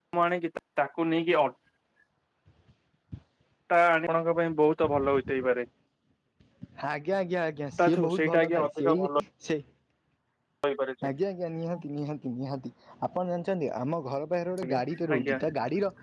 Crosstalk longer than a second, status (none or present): present